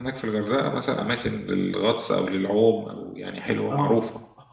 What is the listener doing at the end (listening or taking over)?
taking over